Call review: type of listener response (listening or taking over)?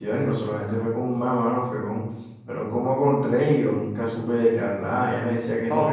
listening